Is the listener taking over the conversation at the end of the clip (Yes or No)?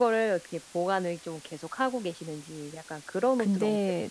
Yes